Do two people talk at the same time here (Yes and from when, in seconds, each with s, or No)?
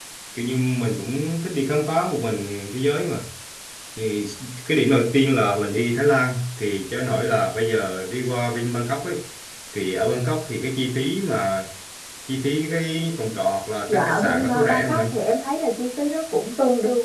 Yes, from 13.9 s